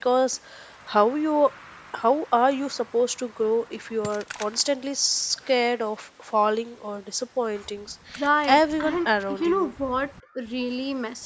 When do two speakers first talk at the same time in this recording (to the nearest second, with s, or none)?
8 s